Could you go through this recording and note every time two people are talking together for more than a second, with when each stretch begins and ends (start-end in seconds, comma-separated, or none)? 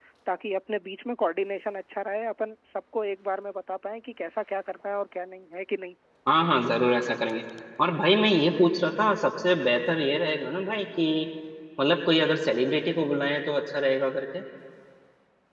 none